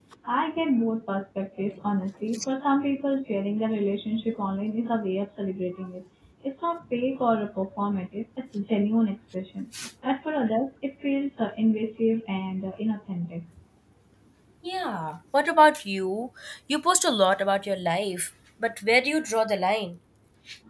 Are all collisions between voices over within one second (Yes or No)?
Yes